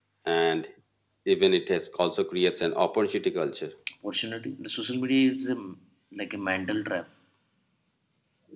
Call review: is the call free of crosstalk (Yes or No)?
Yes